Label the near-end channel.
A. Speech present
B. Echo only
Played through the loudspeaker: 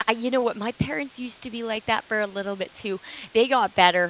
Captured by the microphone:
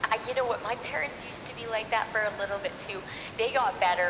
B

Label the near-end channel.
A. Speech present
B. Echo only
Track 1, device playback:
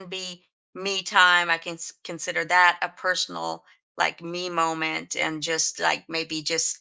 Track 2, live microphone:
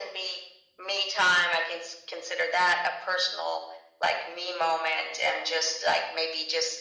B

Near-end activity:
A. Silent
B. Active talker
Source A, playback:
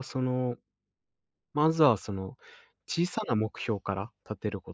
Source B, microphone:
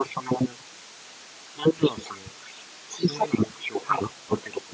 B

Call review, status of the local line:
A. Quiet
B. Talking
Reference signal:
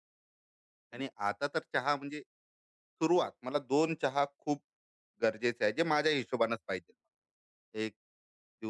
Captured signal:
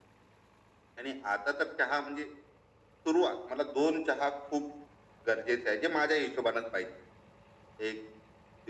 A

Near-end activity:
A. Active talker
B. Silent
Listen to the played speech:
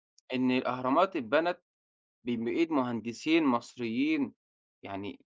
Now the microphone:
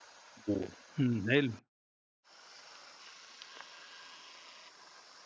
A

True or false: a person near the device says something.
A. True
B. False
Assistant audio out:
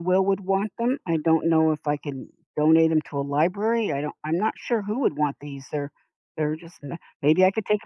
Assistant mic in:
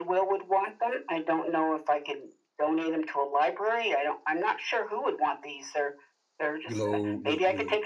A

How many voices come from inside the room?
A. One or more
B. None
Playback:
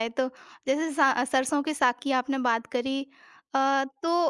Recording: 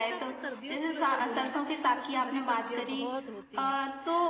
A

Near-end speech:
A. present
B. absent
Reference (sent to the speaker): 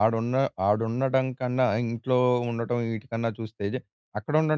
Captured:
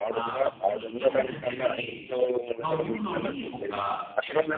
A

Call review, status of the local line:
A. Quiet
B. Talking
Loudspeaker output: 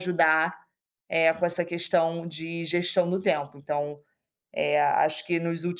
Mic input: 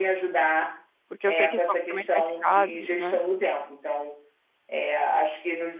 B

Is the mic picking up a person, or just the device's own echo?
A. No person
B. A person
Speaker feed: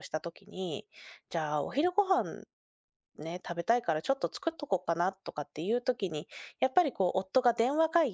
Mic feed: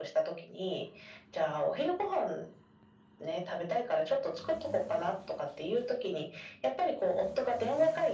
A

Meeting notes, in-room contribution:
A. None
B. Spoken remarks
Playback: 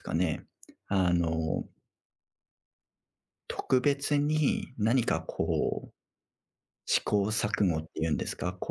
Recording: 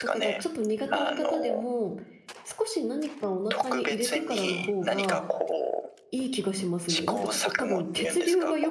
B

